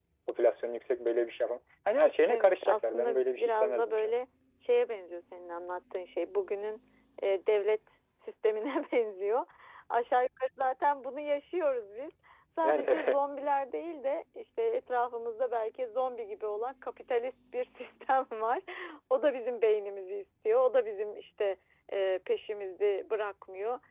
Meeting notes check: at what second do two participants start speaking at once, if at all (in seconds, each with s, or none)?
2.3 s